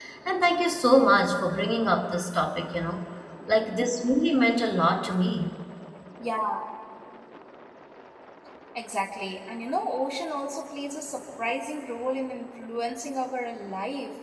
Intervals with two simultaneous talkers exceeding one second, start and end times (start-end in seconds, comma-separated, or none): none